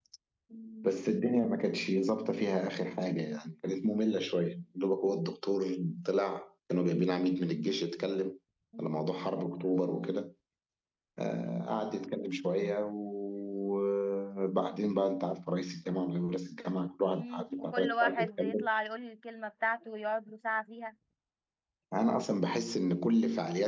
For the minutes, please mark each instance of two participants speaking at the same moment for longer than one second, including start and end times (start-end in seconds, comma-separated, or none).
17.1-18.6